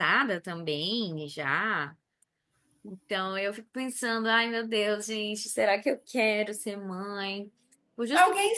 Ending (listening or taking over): taking over